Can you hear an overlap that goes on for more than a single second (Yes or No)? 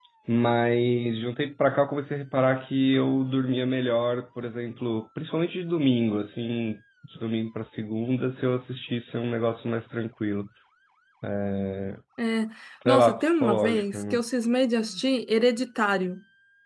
Yes